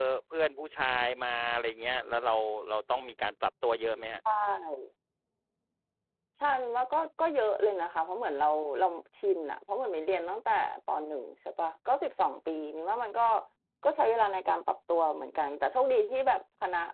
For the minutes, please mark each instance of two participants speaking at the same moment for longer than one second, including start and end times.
none

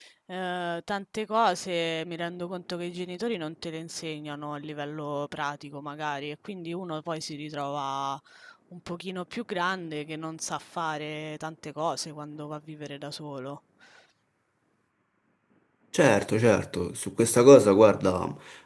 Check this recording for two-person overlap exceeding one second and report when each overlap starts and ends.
none

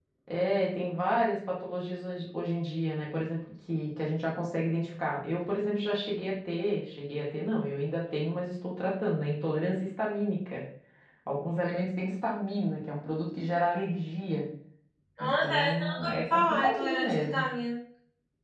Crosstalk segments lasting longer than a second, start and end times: 15.2-17.4

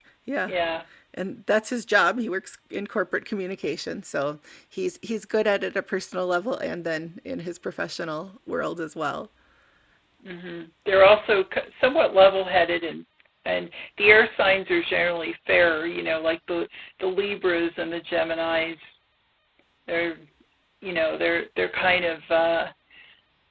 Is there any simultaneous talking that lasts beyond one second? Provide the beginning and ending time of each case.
none

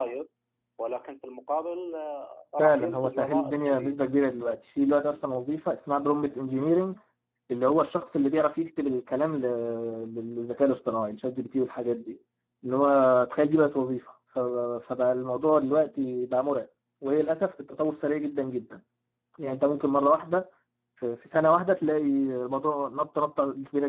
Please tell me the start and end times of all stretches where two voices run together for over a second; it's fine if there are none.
2.6-4.0

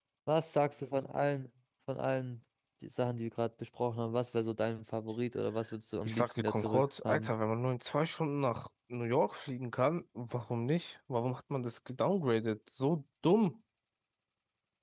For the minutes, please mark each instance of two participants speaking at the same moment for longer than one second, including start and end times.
6.0-7.3

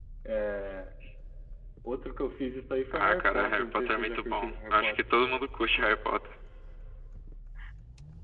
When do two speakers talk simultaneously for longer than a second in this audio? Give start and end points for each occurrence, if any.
2.9-5.0

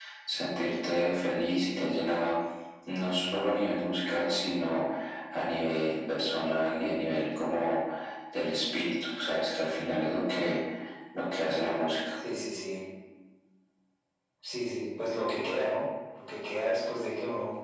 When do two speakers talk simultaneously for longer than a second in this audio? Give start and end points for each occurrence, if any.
none

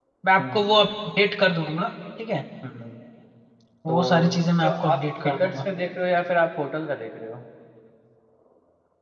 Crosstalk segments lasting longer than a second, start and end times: 3.9-5.6

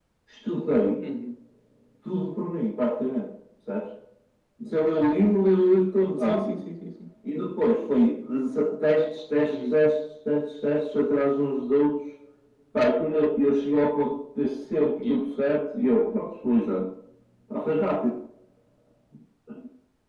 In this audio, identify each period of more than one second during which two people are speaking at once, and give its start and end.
none

